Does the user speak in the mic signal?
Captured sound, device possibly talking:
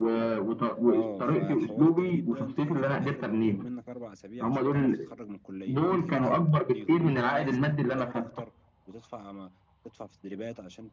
Yes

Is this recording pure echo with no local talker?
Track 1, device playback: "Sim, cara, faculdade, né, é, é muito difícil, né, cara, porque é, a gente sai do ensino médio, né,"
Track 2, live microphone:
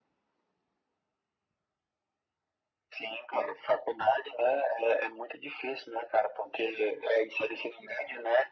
Yes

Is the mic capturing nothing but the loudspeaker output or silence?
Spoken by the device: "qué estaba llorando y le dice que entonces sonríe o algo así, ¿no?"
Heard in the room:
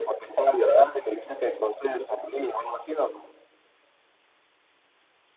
Yes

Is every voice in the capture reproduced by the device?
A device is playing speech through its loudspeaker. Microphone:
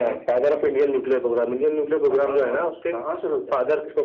Yes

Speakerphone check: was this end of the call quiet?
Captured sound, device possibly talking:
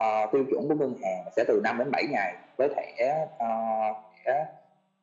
Yes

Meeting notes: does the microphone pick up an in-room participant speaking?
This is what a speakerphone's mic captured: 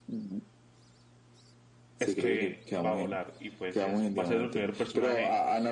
Yes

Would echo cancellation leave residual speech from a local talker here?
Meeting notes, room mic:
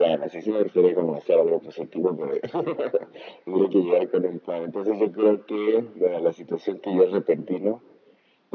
No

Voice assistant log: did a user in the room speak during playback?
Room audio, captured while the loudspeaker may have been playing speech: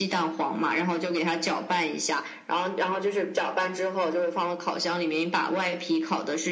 No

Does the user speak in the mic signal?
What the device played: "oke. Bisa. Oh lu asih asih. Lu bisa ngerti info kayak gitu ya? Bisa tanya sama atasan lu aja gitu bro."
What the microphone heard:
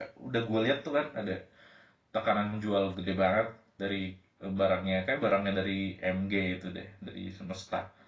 Yes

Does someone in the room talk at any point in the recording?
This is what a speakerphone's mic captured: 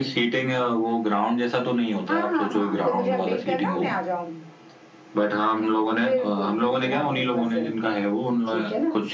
No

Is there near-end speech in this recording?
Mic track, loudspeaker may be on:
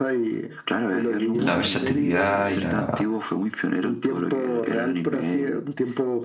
Yes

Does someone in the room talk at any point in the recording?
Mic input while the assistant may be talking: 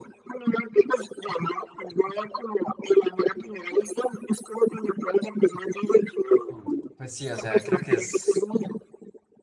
Yes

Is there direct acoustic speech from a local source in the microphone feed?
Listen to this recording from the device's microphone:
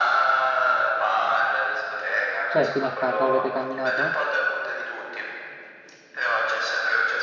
Yes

